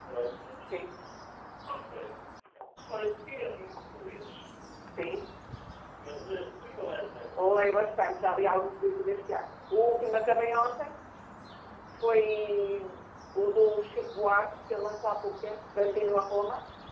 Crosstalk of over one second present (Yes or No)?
No